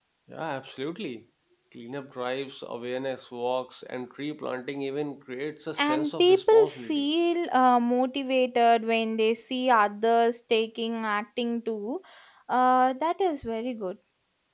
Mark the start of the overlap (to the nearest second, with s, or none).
6 s